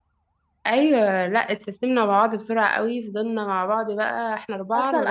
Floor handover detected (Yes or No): Yes